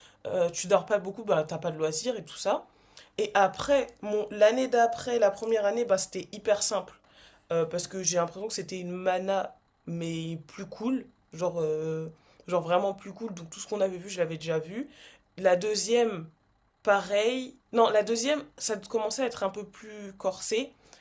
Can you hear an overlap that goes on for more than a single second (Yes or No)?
No